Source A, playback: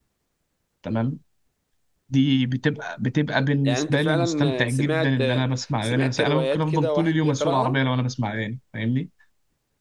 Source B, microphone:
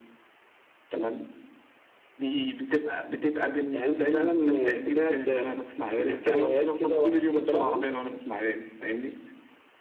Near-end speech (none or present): none